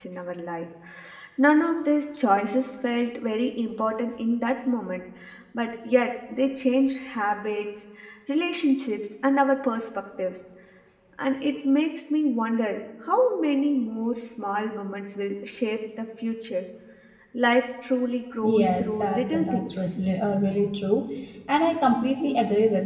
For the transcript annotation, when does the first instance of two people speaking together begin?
18.4 s

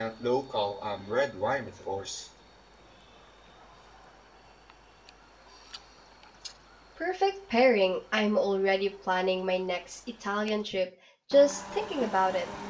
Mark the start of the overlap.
none

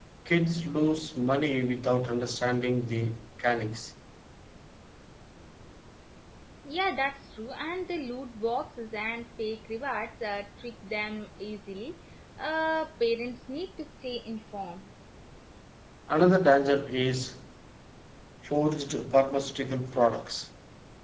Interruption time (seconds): none

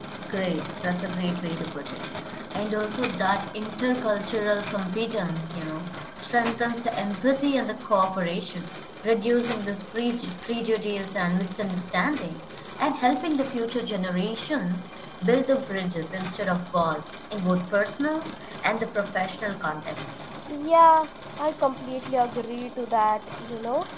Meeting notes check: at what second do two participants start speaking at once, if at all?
none

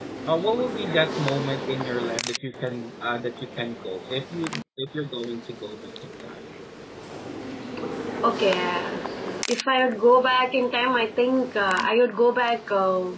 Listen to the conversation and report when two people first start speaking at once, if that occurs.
none

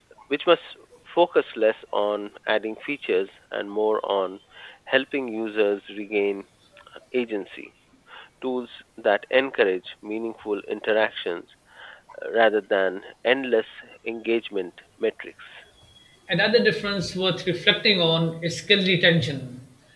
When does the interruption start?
none

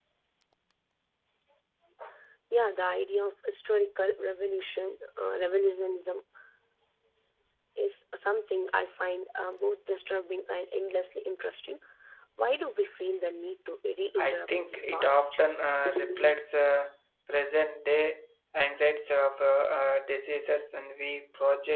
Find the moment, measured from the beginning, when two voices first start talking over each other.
14.2 s

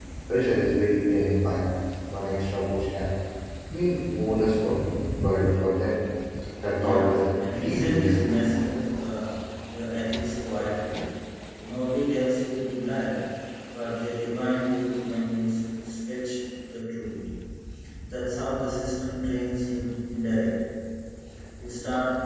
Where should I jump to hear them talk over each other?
6.7 s

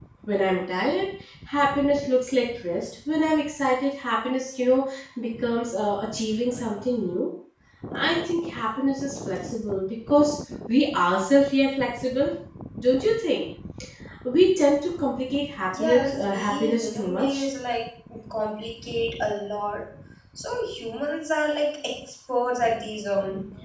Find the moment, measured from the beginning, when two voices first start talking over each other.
15.7 s

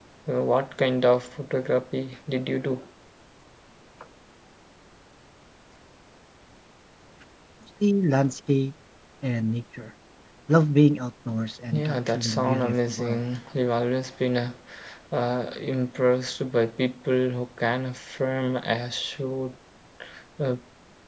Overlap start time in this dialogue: 11.7 s

